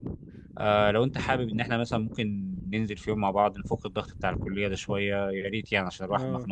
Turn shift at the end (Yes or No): Yes